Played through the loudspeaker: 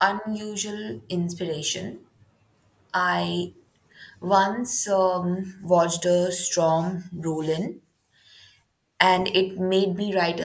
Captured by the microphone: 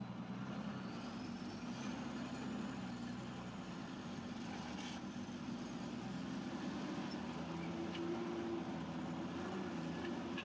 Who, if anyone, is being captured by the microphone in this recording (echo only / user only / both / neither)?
neither